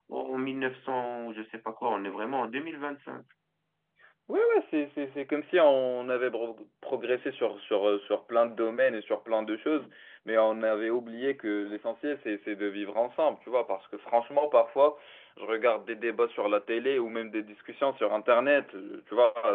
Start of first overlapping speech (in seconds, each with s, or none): none